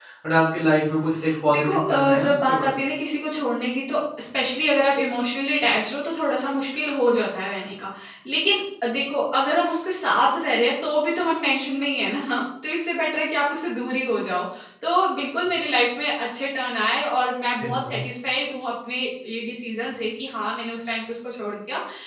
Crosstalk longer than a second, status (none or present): present